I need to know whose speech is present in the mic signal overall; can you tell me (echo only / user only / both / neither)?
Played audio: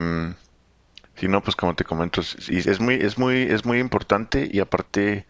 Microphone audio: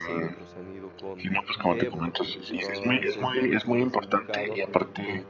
both